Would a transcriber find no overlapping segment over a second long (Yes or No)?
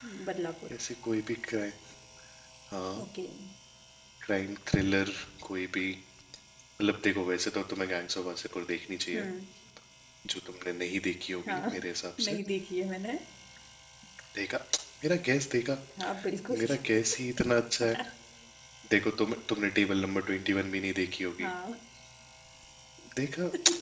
Yes